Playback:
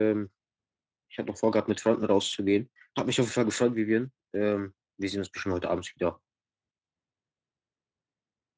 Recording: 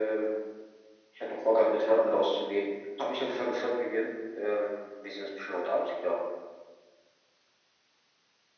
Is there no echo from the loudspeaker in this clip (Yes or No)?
No